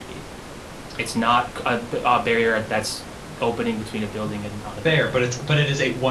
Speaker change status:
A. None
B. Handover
B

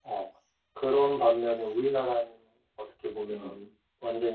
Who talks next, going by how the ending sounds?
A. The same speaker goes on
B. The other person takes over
A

